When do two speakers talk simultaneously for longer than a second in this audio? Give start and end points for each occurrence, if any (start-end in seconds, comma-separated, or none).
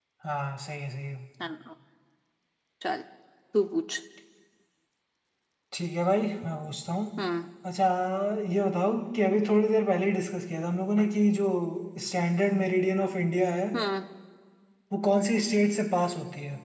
none